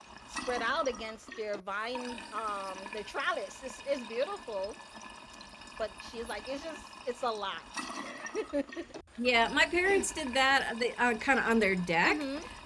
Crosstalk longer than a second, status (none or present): none